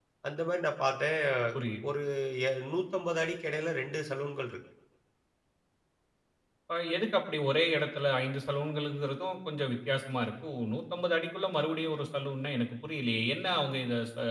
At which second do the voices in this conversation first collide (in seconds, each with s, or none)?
none